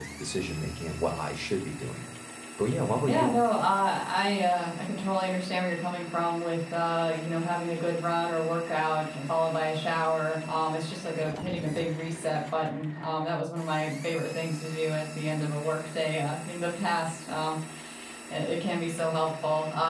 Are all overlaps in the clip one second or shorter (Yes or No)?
Yes